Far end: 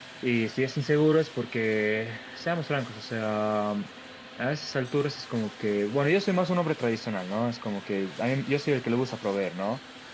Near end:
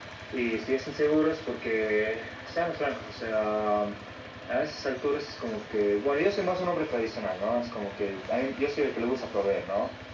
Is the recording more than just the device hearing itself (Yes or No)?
No